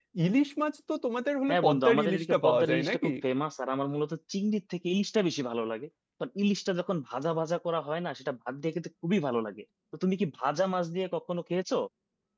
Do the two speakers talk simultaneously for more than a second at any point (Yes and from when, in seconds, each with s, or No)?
Yes, from 1.5 s